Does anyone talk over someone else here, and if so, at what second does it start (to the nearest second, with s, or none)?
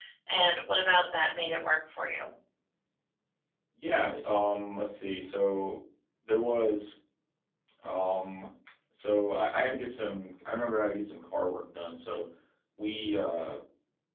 none